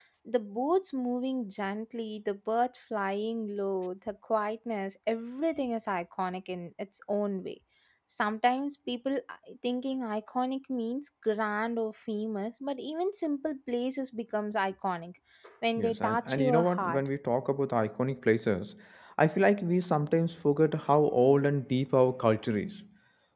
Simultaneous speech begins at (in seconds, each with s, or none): 15.8 s